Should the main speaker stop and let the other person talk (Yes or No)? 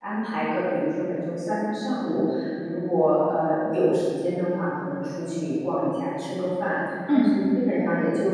No